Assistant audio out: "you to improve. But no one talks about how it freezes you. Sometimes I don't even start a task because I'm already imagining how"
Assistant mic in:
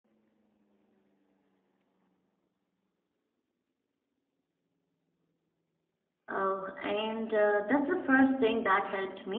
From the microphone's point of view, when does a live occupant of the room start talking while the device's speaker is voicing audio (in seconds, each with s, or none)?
6.3 s